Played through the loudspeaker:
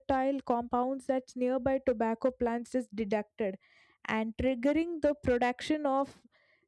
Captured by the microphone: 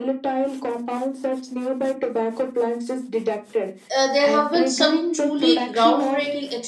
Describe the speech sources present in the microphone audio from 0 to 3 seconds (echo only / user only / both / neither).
echo only